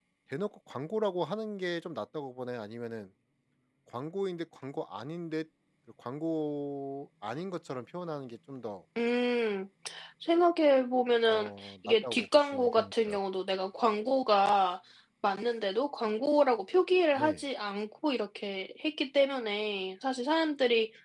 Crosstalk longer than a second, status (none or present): present